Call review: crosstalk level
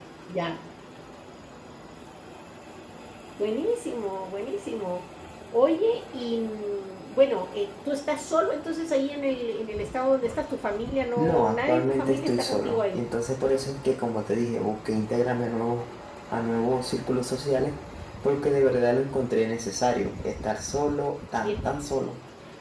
present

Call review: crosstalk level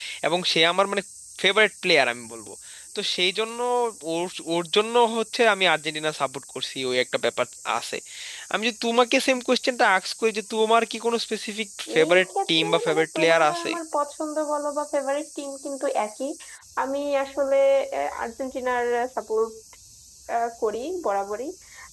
present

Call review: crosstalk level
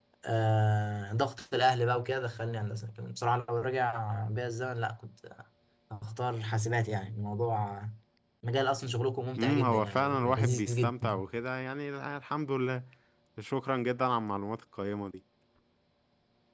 present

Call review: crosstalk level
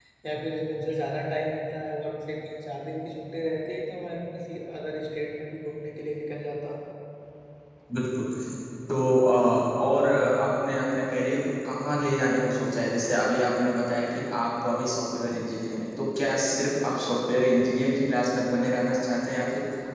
none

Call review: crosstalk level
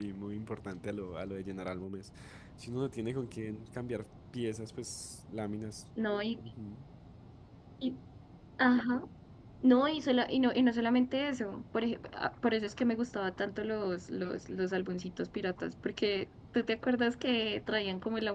none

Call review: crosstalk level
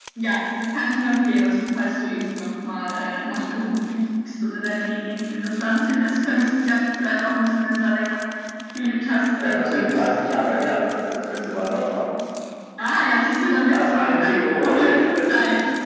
present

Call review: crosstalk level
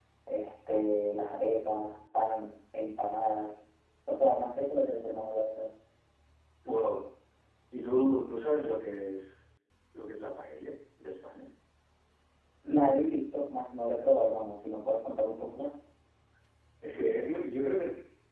none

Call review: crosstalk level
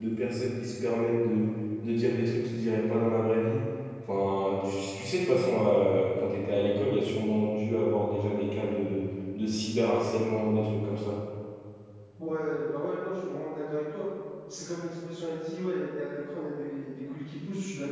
none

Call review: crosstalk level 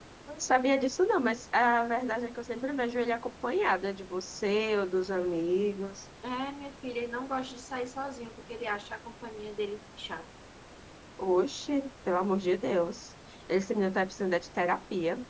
none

